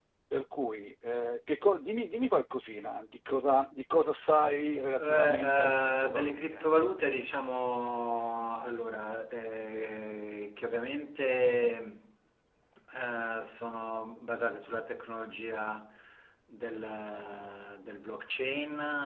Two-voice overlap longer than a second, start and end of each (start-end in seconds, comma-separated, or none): 5.0-6.7